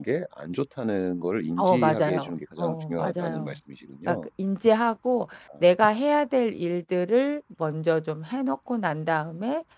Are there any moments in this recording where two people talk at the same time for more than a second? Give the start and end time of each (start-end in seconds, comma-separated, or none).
1.6-3.6